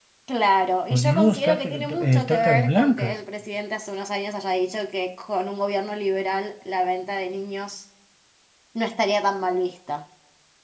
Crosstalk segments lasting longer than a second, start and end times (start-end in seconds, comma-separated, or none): 0.9-3.2